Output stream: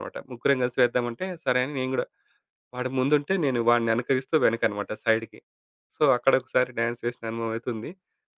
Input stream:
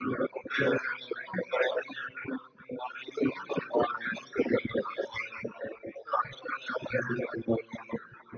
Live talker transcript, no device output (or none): none